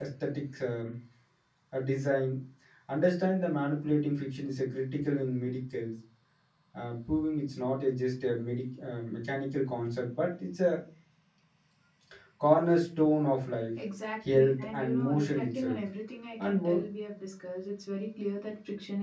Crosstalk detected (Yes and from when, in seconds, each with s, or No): Yes, from 14.3 s